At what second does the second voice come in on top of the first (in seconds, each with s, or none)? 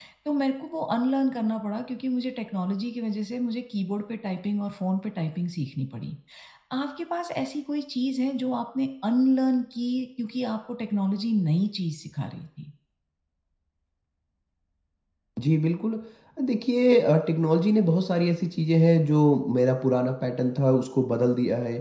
none